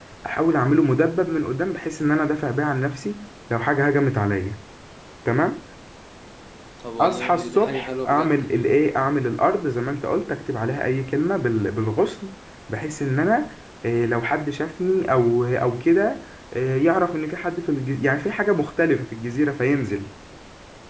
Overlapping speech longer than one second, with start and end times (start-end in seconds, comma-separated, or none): 7.0-8.3